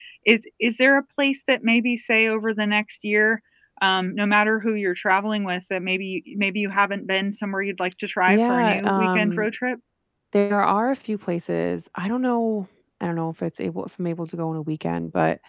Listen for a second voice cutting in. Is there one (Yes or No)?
Yes